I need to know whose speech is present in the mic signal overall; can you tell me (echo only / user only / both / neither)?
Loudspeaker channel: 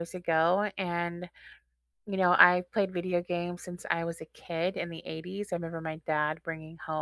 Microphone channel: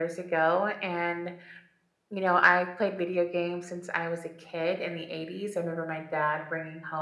echo only